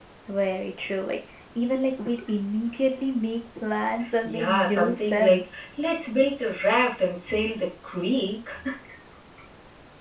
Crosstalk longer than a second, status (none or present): present